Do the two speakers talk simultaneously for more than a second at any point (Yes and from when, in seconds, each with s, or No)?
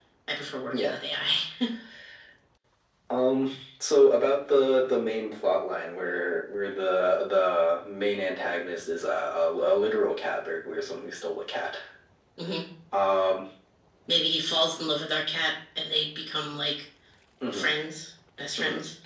No